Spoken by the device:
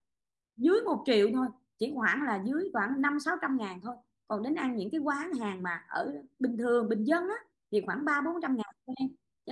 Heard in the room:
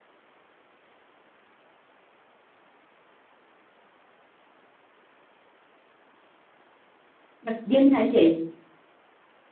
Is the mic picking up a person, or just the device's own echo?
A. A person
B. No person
A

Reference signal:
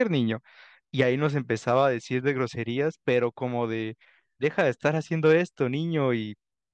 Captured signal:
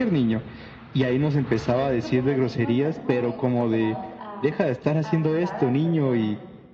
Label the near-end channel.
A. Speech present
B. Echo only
A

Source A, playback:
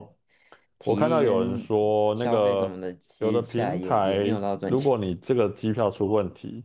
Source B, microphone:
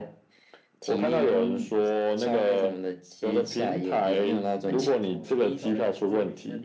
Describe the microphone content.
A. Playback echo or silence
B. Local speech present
B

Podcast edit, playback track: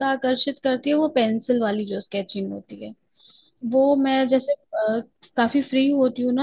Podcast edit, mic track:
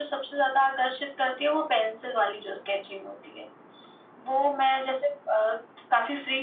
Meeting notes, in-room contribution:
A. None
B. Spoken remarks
A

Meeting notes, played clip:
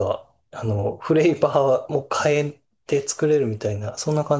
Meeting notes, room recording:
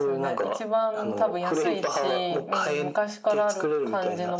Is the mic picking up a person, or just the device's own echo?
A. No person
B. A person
B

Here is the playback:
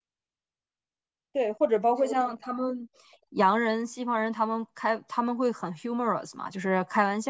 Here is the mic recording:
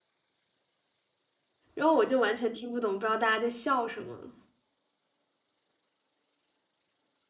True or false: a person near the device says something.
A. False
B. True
B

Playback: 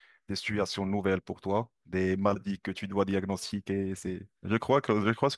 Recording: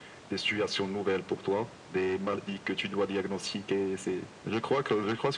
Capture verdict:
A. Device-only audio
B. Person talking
A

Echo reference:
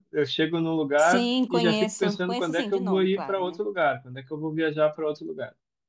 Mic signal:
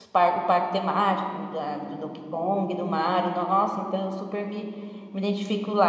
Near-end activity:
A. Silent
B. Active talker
B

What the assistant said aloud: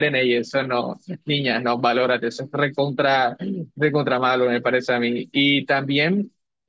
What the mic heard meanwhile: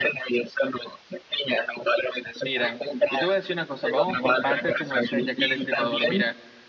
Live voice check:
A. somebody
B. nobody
A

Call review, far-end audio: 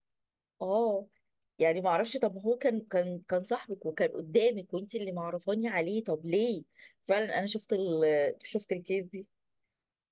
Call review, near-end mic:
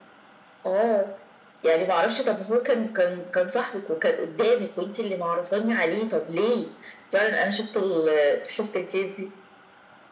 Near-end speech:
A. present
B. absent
B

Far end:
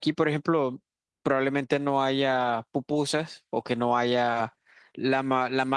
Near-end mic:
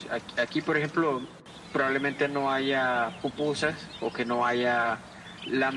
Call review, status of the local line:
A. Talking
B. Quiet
B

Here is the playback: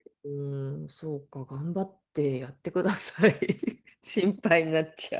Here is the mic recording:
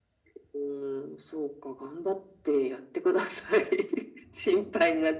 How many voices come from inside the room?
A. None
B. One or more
A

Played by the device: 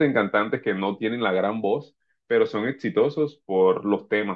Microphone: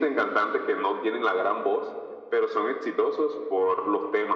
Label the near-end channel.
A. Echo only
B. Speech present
A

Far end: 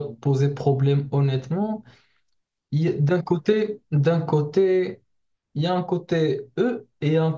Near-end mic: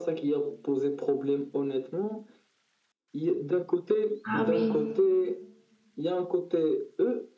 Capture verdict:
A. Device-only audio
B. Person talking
B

